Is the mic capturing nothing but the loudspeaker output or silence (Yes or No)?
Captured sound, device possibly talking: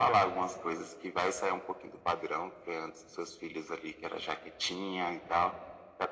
Yes